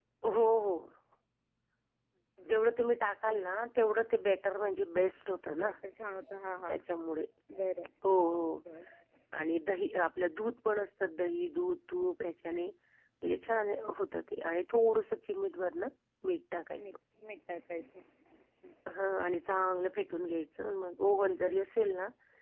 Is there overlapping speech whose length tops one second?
No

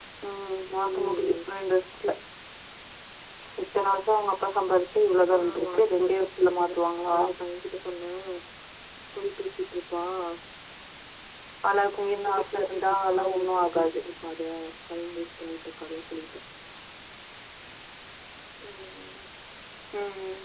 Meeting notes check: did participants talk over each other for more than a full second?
Yes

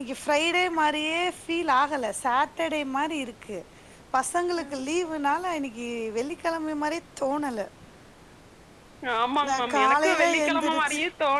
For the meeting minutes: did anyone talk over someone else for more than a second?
Yes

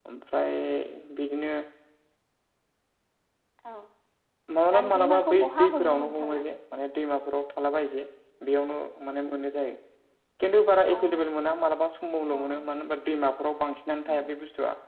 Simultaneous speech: Yes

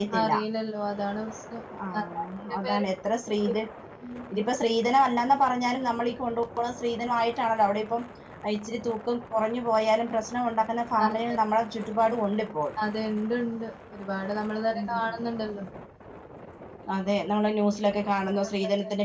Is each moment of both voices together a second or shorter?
Yes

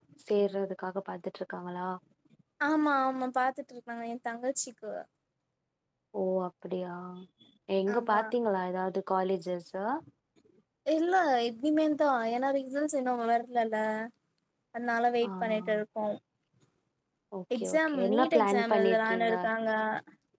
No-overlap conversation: No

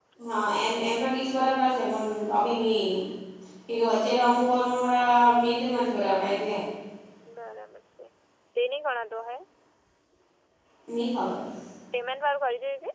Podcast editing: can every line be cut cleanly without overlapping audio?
Yes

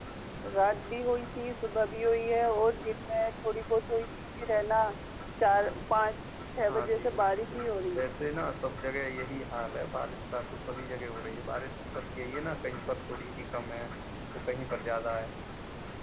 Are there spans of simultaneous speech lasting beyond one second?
Yes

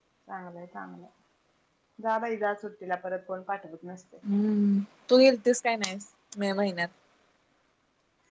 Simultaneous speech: No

